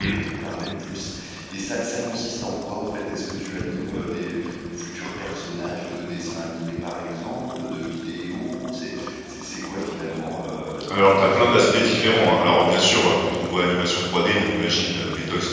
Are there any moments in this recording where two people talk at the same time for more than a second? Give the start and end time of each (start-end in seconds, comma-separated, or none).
10.9-12.3